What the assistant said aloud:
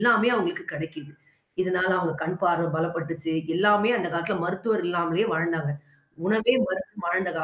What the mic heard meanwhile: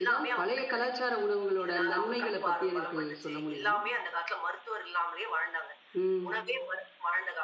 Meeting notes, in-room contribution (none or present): present